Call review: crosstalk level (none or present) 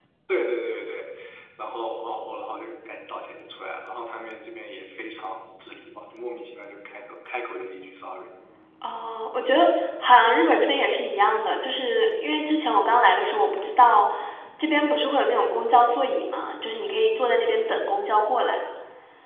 none